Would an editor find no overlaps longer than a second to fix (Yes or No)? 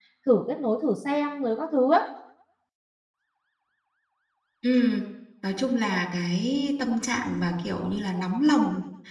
Yes